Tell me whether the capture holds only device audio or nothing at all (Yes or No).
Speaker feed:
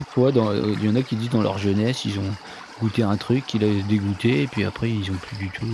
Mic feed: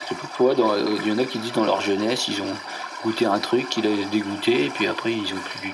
Yes